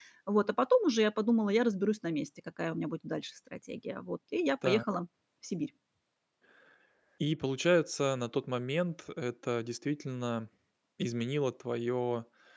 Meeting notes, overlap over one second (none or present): none